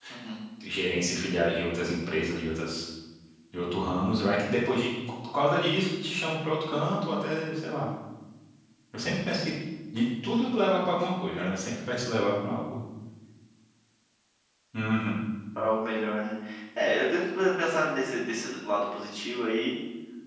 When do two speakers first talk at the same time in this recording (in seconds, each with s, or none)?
none